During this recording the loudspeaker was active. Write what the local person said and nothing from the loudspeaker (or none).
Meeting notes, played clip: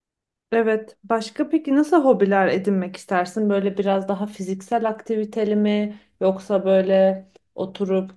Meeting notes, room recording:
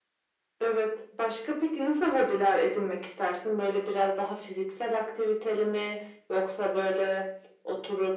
none